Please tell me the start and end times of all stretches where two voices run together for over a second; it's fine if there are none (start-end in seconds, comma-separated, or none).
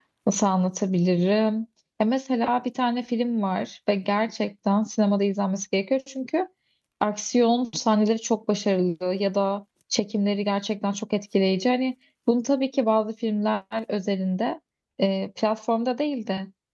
none